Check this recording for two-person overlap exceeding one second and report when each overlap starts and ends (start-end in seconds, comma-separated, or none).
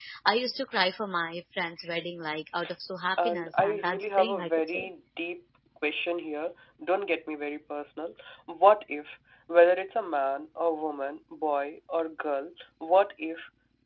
3.2-4.9